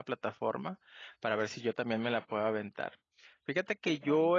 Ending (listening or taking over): listening